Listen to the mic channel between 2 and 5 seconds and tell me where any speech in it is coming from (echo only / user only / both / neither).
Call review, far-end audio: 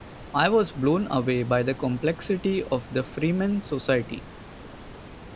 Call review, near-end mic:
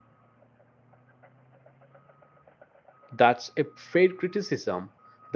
user only